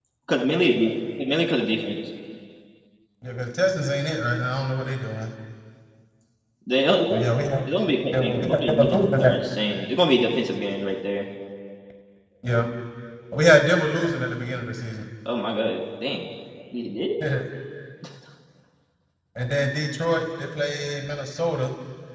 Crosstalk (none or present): present